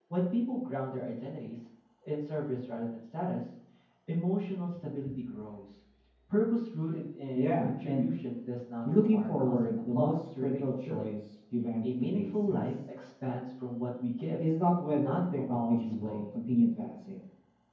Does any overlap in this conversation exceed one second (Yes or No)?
Yes